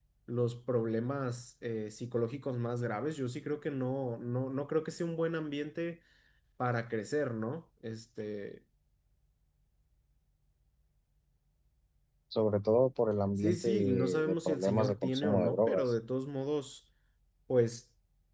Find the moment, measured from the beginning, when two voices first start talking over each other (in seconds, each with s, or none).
13.4 s